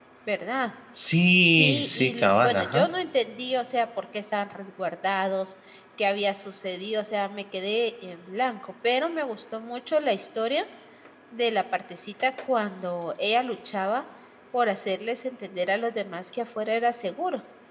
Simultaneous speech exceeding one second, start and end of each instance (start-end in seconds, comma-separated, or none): 1.4-2.9